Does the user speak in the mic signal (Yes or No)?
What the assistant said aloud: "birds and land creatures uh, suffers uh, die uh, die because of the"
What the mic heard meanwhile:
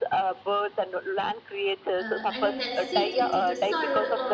Yes